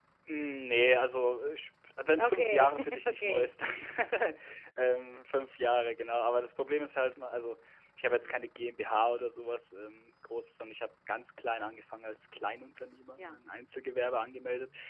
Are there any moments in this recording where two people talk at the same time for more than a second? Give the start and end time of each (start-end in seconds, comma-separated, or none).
2.2-3.5